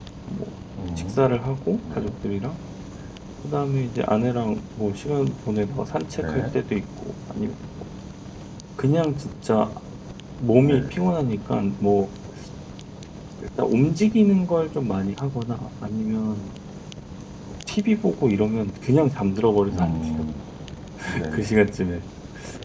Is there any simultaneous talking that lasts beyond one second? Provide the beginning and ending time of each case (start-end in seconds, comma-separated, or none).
none